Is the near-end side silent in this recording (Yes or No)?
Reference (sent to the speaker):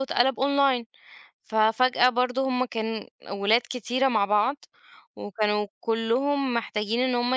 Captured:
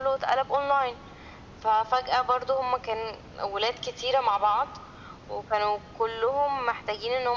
Yes